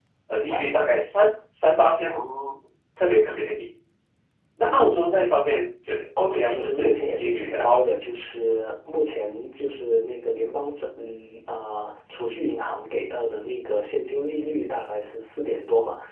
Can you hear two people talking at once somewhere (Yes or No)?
Yes